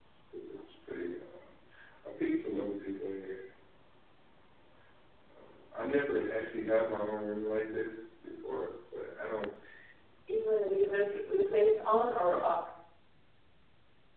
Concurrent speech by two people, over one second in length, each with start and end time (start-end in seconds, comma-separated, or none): 10.6-11.8